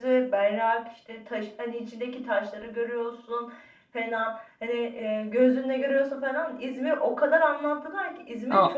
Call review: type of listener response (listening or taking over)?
taking over